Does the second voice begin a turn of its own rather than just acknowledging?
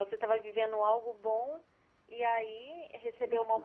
No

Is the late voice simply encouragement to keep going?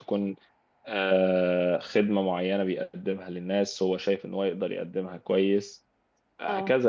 Yes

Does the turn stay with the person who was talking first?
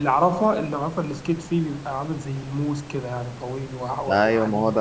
No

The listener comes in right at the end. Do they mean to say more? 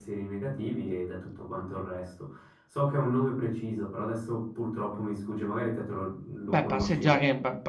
Yes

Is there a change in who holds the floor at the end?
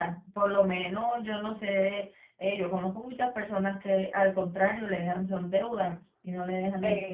Yes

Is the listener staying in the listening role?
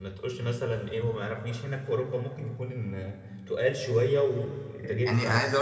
No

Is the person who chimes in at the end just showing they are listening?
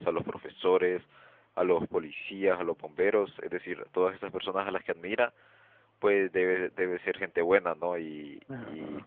Yes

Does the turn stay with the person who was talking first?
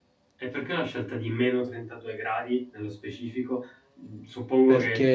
Yes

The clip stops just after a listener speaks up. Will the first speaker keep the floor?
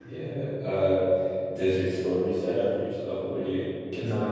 No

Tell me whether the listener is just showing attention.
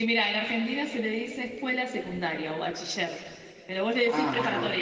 No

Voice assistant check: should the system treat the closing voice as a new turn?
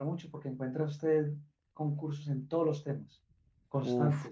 Yes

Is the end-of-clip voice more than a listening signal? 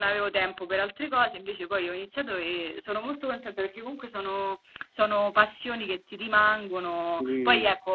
No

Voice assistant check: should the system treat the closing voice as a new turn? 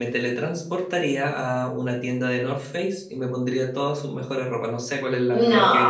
No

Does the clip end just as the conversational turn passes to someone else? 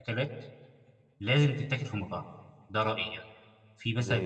No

